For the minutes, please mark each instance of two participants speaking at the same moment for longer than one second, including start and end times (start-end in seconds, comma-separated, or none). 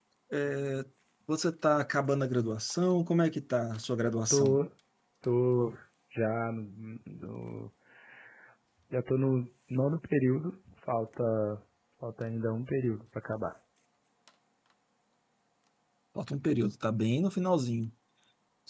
none